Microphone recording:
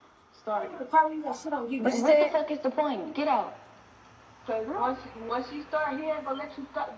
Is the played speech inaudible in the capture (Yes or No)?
No